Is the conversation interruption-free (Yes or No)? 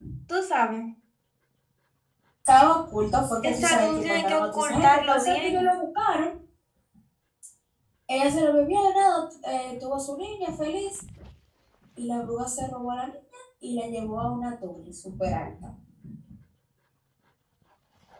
No